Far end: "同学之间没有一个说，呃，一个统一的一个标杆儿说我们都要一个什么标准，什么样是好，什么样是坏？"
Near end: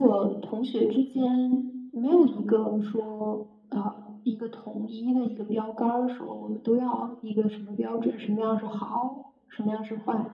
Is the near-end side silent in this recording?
Yes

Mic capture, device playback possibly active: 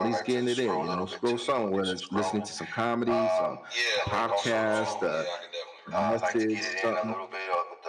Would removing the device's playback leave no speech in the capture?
No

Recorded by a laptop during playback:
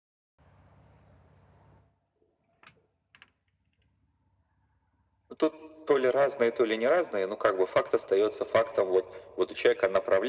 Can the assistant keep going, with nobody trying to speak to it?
Yes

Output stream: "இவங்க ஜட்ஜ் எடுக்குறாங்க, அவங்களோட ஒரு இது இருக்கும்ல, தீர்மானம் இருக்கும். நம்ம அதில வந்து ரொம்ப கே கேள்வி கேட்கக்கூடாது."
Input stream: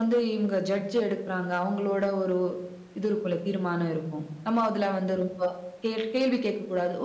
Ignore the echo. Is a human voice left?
No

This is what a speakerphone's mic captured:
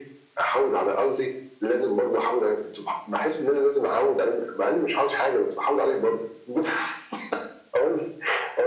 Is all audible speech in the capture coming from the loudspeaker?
Yes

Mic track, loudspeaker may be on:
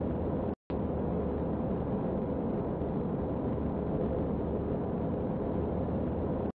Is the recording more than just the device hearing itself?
No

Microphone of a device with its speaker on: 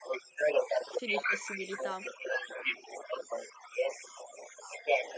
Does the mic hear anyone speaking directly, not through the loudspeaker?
Yes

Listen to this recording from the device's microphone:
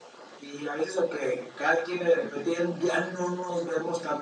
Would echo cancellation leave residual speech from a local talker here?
No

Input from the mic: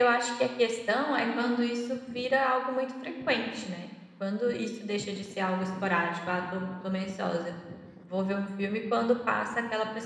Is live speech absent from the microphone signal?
Yes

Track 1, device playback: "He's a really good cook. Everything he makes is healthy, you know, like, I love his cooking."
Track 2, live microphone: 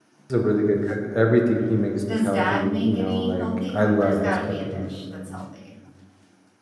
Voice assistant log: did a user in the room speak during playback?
Yes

